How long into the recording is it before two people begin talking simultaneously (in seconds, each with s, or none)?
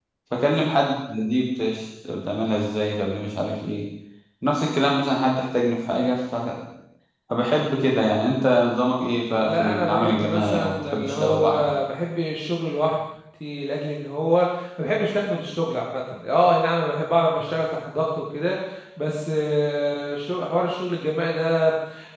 9.4 s